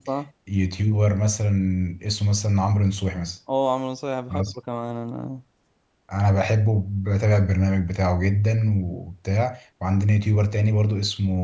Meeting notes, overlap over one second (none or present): none